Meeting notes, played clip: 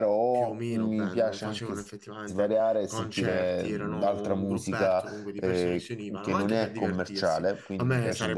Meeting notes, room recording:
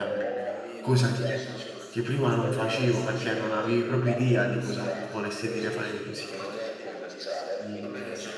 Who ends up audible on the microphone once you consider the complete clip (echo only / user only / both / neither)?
both